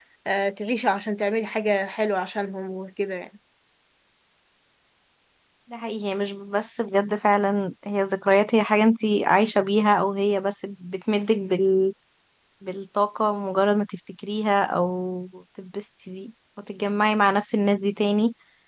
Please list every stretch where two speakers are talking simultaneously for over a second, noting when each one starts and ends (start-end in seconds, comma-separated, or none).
none